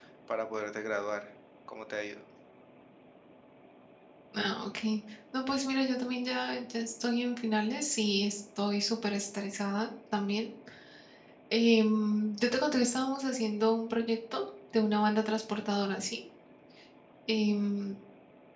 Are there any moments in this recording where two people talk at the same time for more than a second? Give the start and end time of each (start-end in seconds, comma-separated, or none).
none